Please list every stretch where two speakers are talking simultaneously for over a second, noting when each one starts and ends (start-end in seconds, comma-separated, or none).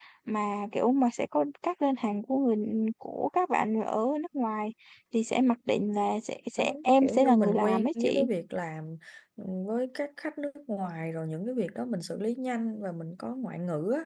6.6-8.3